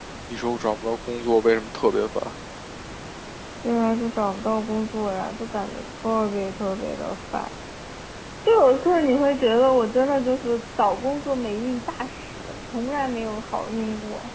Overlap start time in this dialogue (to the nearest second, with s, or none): none